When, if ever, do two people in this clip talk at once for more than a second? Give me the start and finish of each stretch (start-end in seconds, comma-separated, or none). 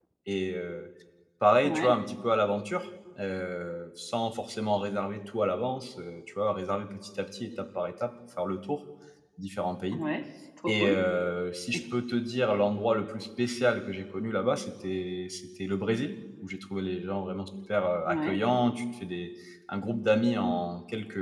none